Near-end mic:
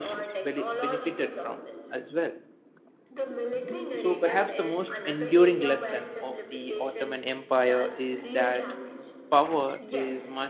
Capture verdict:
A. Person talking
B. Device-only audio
A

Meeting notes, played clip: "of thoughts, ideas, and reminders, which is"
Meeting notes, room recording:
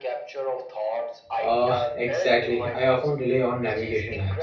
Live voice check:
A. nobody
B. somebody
B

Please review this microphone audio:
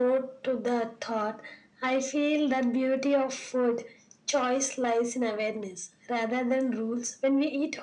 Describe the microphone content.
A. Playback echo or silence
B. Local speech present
A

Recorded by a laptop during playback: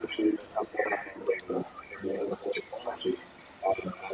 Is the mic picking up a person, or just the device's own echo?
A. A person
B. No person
B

